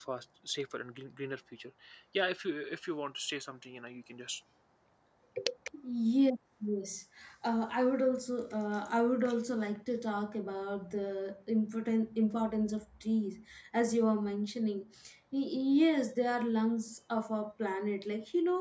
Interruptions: none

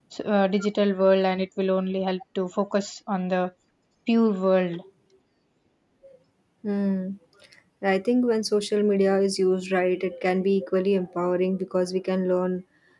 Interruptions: none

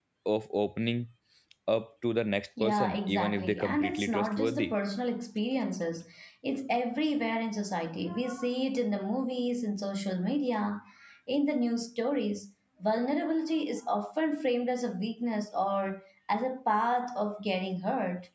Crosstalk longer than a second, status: present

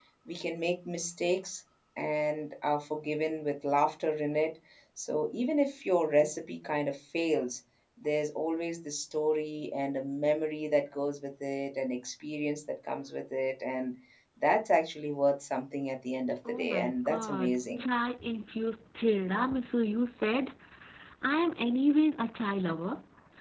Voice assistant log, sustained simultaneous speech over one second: present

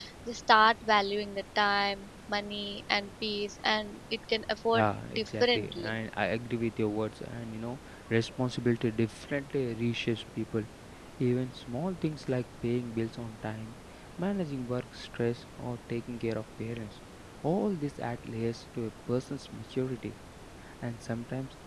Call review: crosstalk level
present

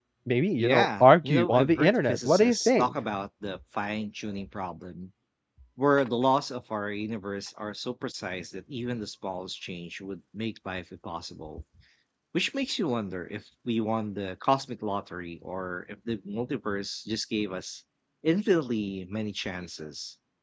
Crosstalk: present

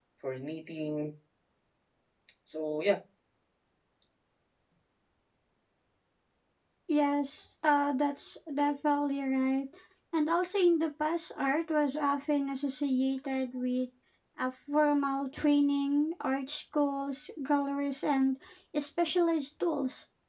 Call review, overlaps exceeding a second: none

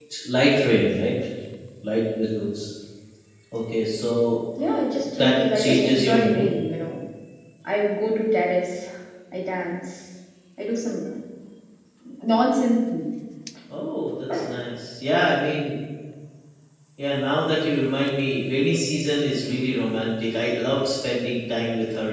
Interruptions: present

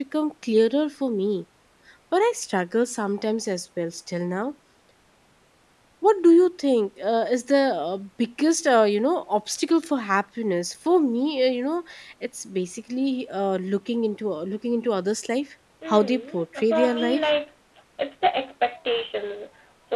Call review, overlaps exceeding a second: present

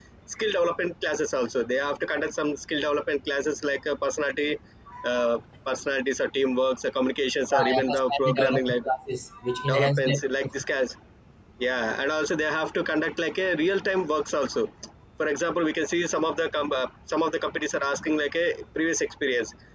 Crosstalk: present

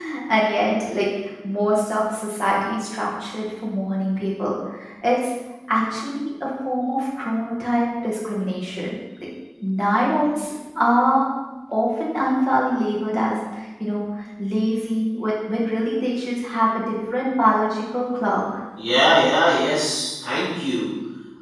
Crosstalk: none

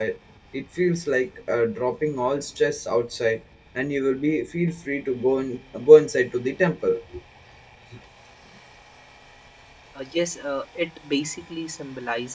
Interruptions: none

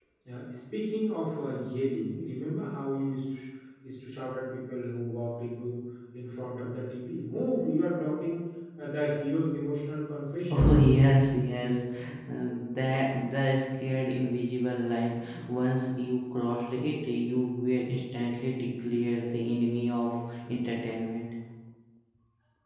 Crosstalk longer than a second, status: none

